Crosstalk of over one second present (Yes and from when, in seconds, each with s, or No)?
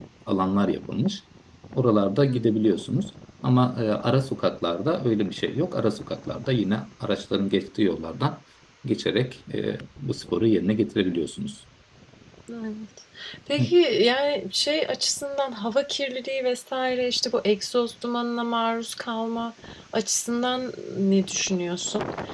No